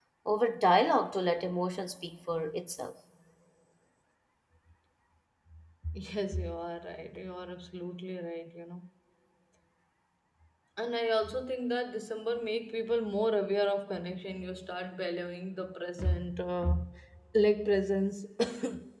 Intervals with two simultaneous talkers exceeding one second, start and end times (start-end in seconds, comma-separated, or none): none